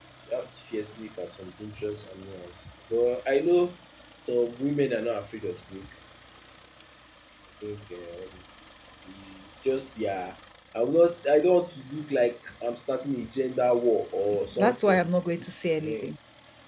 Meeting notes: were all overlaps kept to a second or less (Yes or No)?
Yes